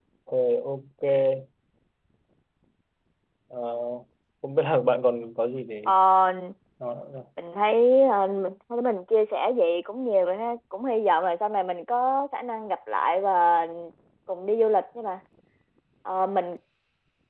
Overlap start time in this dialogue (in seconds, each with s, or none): none